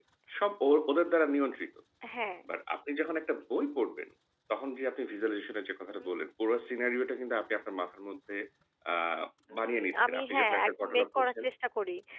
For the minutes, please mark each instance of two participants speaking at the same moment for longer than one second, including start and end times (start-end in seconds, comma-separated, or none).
9.6-11.4